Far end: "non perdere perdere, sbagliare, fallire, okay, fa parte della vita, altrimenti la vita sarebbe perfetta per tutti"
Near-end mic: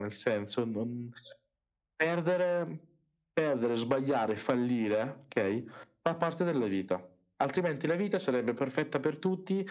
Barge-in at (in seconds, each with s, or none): none